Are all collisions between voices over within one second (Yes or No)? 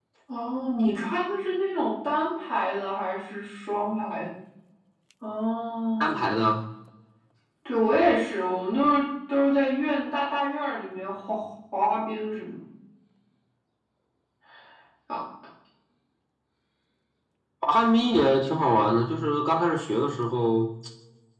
Yes